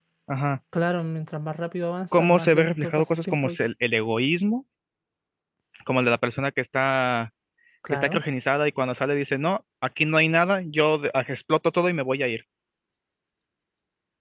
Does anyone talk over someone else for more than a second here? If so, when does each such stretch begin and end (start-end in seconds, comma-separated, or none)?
2.1-3.7